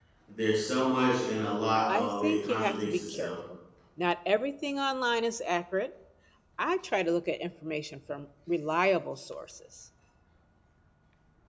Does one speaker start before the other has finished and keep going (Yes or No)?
Yes